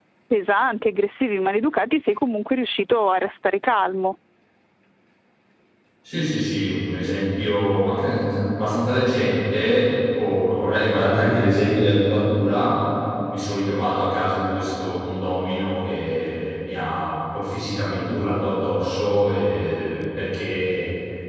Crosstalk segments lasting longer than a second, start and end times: none

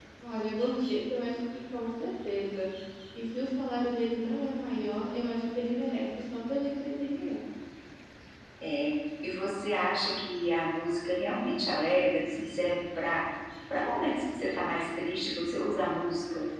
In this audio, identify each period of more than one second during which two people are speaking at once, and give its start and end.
none

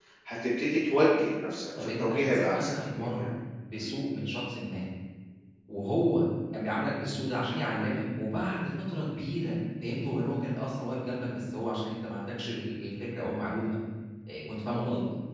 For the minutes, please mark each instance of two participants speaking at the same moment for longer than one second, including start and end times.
1.8-3.3

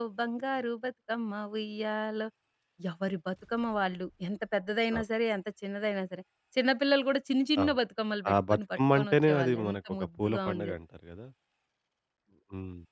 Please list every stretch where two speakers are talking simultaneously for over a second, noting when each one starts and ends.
8.3-10.8

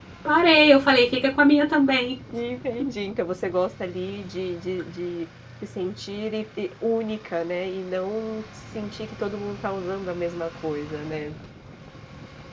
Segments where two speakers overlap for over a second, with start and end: none

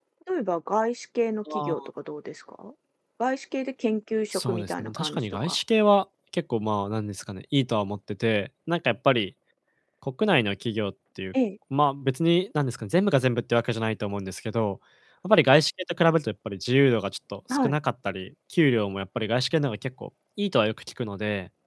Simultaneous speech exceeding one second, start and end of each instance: 4.3-5.5

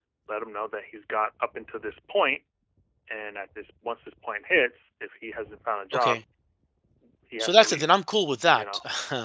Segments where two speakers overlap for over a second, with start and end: none

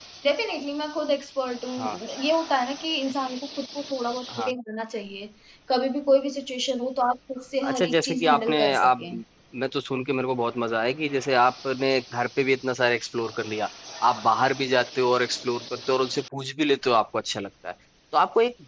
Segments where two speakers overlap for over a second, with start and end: 7.7-9.0

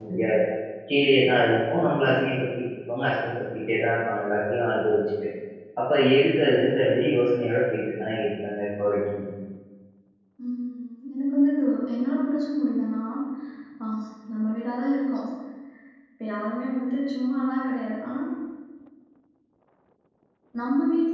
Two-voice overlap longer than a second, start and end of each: none

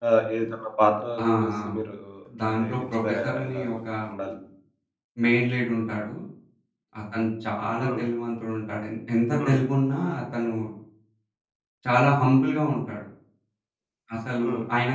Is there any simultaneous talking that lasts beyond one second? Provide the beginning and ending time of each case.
2.5-3.7

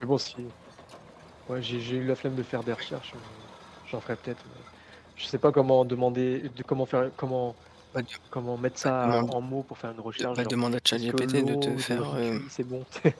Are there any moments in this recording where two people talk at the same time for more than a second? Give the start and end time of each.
10.9-12.4

